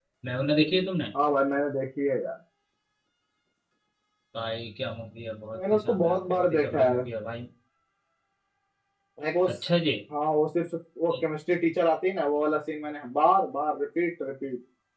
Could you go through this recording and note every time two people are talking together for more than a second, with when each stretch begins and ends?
5.5-7.0

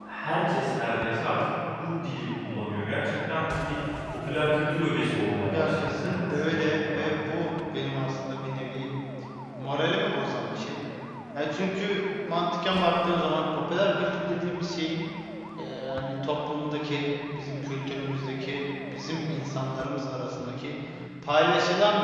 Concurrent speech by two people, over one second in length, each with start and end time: 5.5-7.4

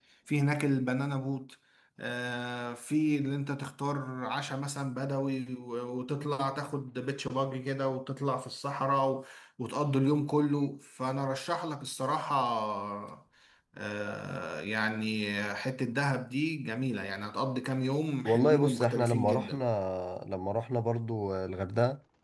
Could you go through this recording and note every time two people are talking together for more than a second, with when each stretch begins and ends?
18.2-19.6

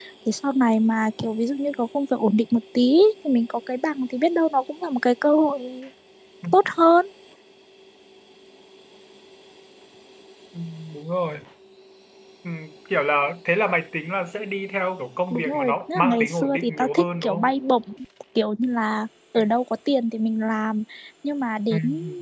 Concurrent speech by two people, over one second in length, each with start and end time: 15.3-17.5

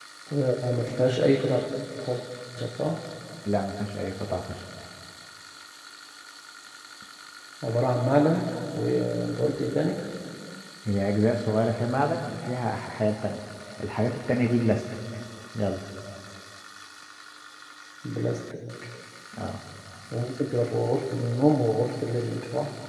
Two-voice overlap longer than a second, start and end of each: none

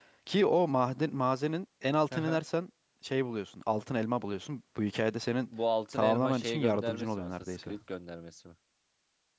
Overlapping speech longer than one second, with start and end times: 5.9-7.7

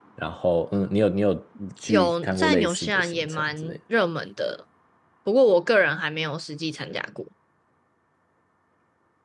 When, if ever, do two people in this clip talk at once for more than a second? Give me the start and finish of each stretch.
1.9-3.8

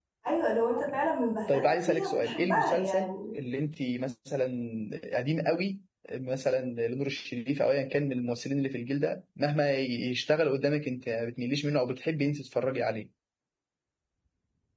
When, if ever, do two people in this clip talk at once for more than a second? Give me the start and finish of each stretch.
1.5-3.1

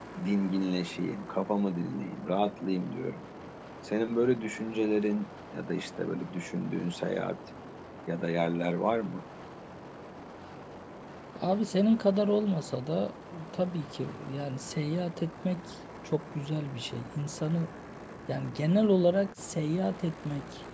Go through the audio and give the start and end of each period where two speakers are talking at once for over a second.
none

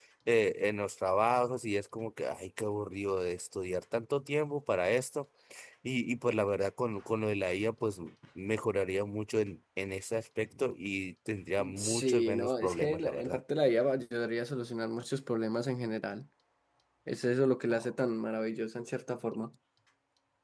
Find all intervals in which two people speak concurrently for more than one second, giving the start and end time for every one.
11.7-13.4

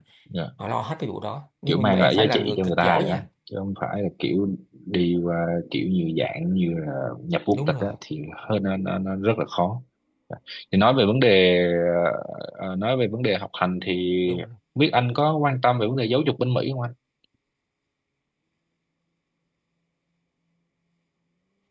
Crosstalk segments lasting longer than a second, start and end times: 1.7-3.2

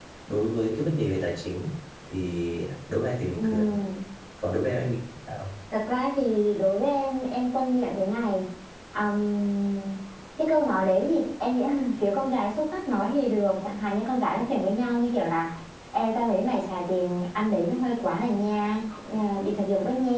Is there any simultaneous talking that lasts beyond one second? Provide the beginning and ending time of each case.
none

